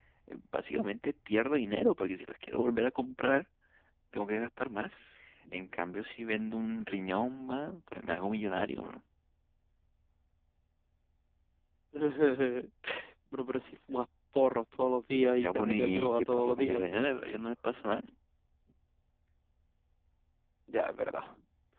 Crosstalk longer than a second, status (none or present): present